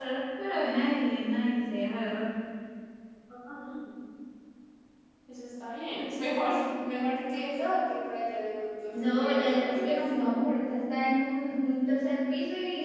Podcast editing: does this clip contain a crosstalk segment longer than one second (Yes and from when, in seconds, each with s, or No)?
Yes, from 8.9 s